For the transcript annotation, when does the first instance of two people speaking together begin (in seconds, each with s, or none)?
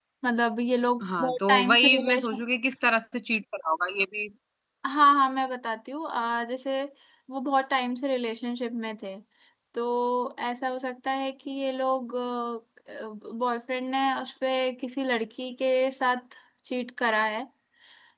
1.2 s